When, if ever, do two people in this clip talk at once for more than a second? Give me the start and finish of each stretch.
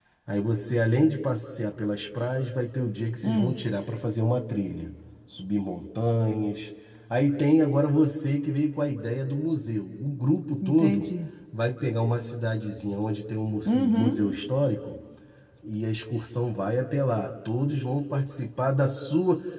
none

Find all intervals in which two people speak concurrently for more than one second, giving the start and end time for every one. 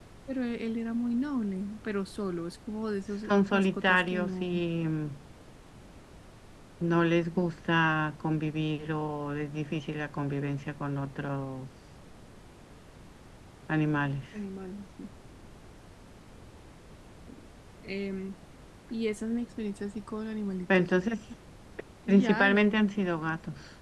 3.3-4.6

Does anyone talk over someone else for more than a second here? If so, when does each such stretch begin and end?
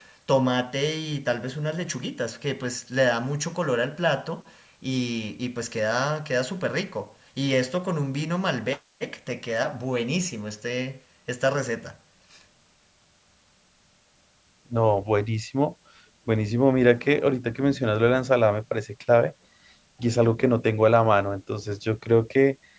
none

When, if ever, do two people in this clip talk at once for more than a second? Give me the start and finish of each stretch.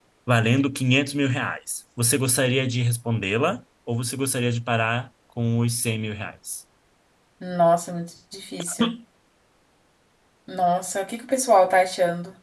none

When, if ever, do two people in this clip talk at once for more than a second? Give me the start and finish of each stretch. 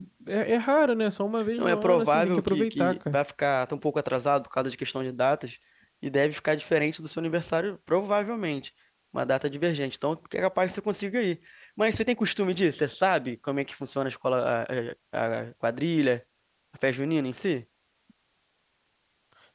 1.6-3.2

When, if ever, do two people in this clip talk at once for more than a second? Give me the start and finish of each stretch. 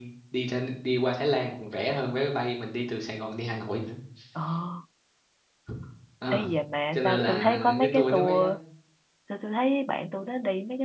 6.9-8.4

